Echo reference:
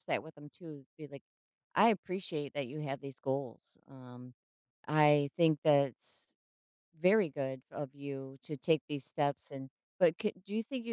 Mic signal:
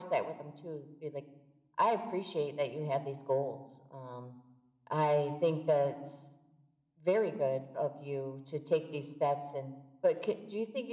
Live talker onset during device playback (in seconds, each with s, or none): none